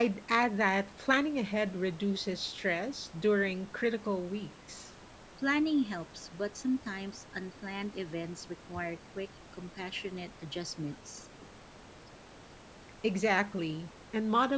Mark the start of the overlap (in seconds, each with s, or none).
none